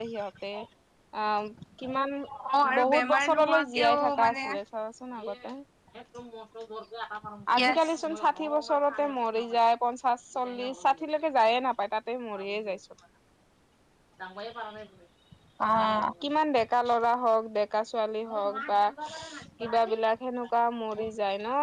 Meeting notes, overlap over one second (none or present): present